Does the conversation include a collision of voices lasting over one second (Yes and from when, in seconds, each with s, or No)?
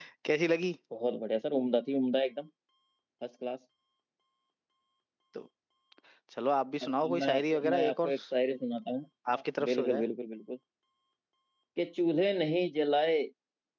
Yes, from 6.8 s